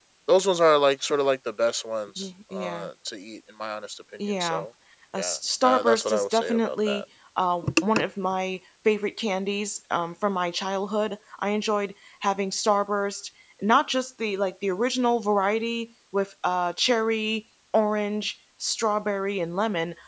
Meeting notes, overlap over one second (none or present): present